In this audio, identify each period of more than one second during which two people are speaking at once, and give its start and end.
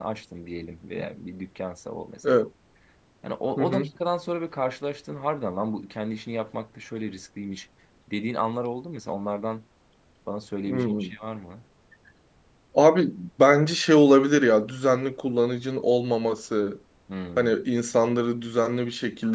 none

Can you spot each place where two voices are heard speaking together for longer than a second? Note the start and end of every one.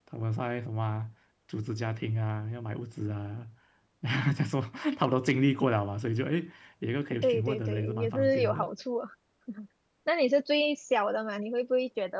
7.2-8.7

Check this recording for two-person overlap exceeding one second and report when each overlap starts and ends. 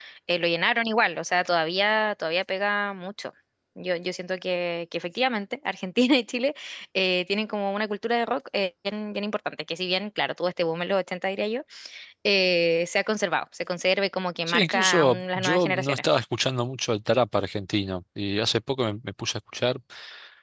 14.5-16.0

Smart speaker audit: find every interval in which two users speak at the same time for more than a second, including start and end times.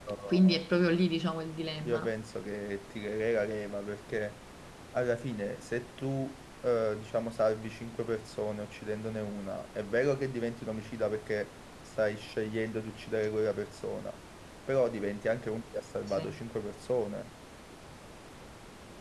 none

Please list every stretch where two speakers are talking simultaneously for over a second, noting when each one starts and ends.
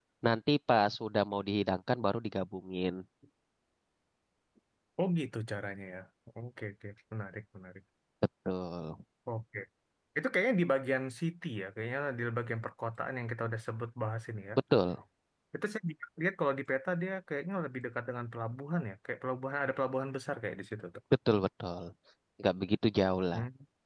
none

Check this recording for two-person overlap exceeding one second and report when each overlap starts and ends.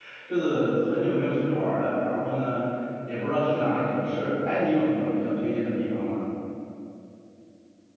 none

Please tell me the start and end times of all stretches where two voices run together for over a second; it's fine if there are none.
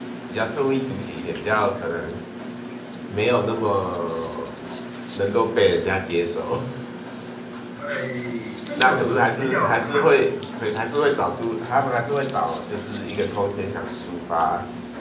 8.8-10.1

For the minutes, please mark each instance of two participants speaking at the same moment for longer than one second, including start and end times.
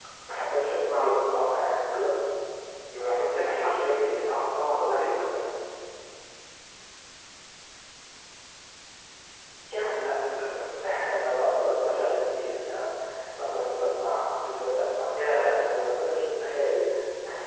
3.1-5.4

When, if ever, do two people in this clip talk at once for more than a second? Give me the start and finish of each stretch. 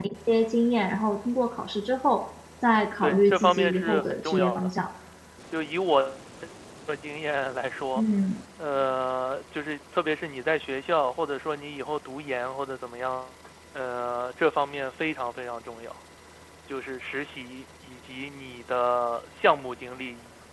3.0-4.7

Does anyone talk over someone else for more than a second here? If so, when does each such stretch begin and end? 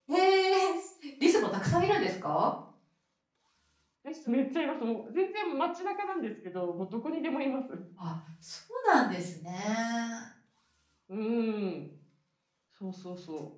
none

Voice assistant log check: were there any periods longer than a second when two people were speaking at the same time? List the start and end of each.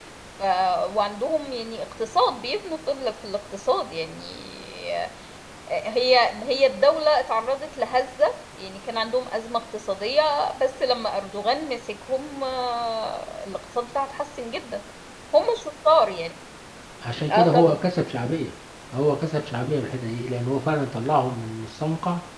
none

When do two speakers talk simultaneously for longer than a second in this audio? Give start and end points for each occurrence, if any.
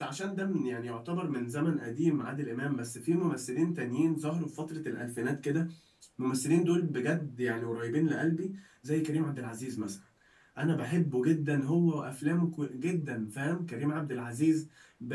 none

